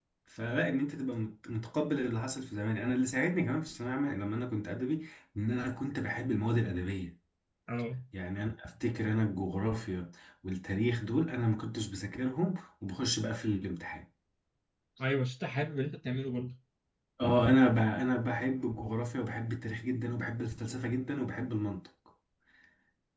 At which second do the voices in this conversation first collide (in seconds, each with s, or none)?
none